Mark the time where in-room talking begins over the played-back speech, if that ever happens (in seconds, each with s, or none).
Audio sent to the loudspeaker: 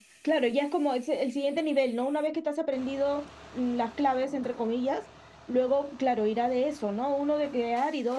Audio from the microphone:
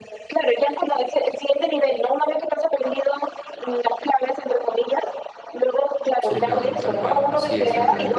6.2 s